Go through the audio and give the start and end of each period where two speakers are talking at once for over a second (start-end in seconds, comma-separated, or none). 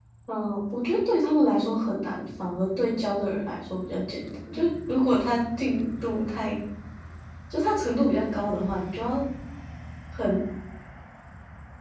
none